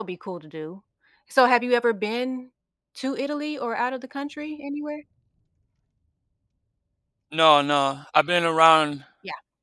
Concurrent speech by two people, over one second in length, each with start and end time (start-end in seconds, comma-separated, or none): none